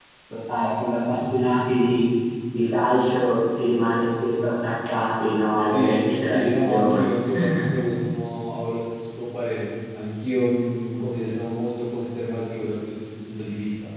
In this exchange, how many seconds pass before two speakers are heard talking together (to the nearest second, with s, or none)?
6 s